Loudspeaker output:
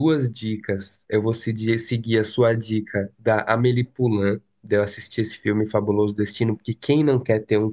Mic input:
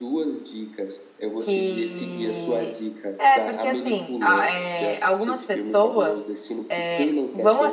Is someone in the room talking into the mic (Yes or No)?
Yes